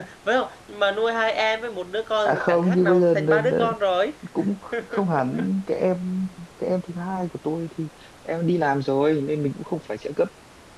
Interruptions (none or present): present